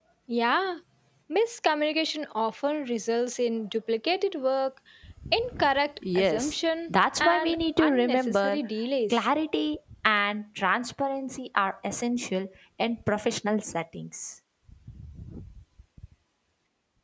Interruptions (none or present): present